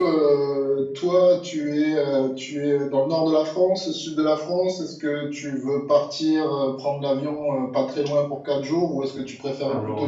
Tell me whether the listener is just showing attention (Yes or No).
Yes